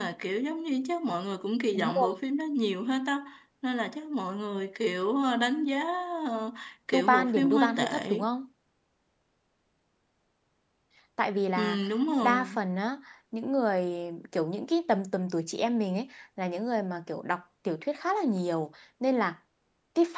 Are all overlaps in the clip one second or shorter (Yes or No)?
No